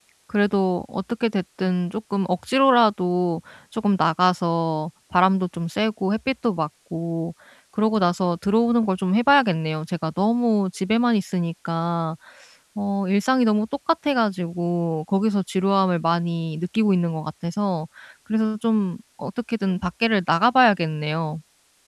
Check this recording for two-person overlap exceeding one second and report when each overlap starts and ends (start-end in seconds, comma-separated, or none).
none